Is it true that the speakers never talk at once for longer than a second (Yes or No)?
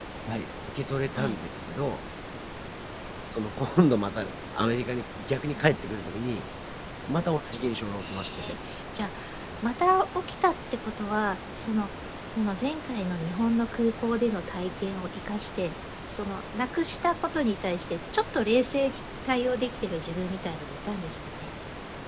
Yes